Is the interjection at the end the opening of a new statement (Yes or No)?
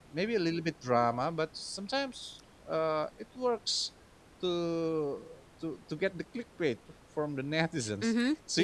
Yes